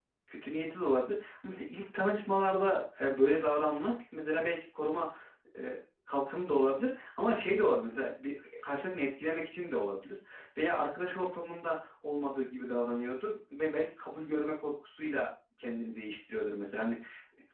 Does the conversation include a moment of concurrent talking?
No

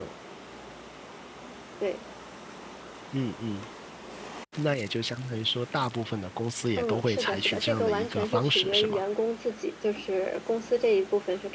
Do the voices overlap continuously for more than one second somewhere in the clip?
Yes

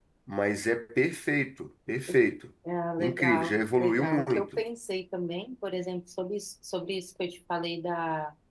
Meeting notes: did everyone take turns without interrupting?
No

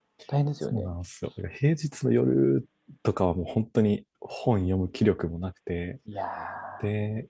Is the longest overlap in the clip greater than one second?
No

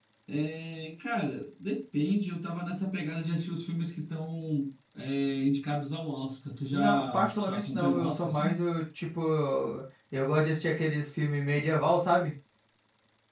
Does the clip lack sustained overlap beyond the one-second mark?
No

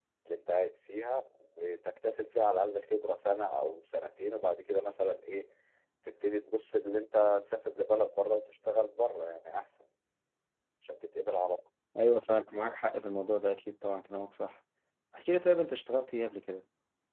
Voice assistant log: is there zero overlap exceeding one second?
Yes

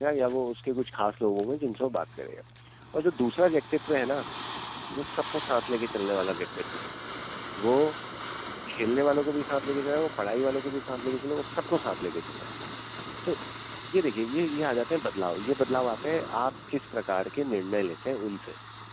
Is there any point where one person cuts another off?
No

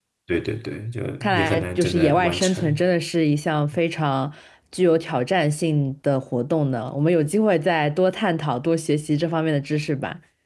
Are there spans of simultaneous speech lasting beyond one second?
Yes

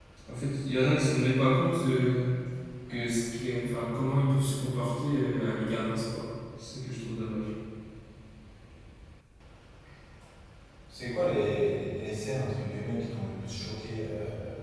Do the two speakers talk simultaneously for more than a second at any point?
No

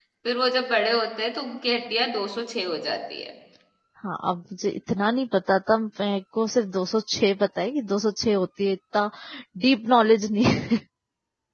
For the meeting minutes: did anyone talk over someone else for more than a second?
No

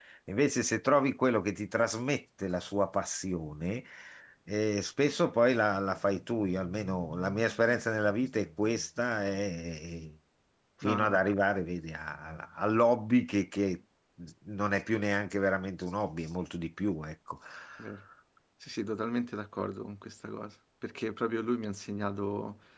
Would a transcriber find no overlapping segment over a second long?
Yes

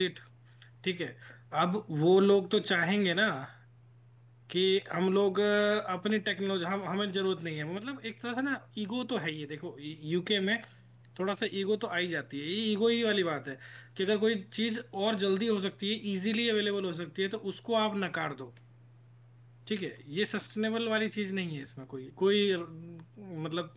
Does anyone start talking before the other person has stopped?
No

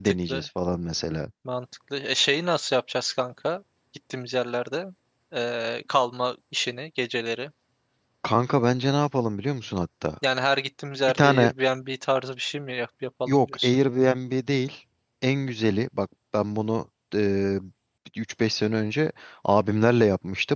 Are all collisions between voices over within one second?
Yes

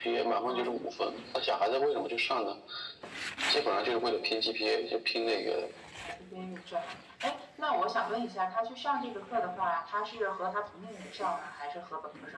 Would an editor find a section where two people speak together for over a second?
No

